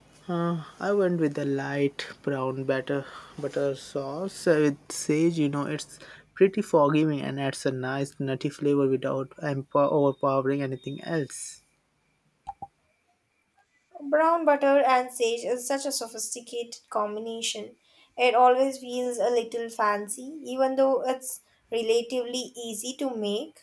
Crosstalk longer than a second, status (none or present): none